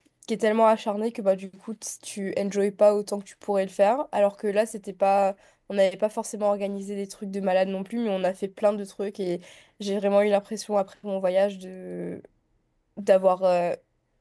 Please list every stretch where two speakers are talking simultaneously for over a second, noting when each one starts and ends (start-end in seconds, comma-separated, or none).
none